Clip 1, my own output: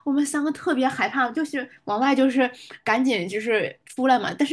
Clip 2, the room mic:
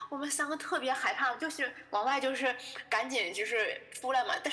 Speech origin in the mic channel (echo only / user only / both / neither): echo only